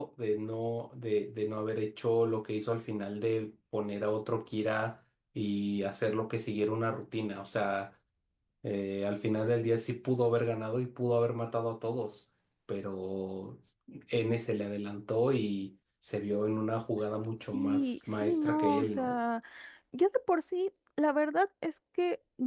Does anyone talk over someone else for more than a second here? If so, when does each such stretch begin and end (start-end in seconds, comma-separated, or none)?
17.5-19.2